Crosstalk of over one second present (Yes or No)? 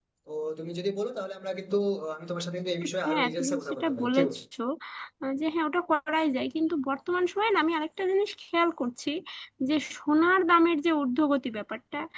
Yes